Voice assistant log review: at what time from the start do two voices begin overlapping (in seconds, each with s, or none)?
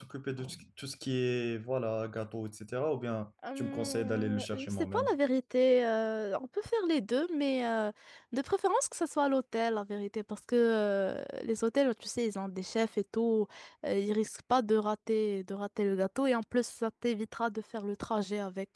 3.4 s